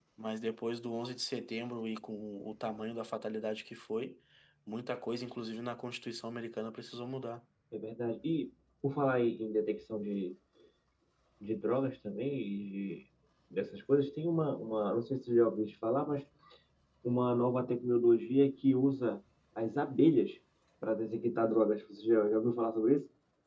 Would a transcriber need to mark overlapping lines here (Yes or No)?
No